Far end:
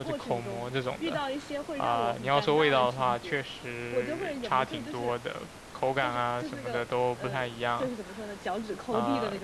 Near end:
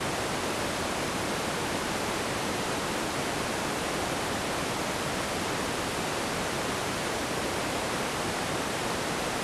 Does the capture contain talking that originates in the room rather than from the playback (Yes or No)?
No